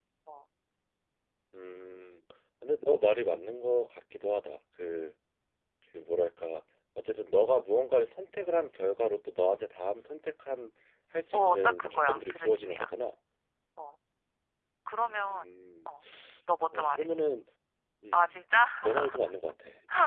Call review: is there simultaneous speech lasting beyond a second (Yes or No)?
Yes